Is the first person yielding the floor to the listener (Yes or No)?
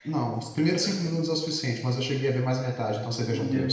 Yes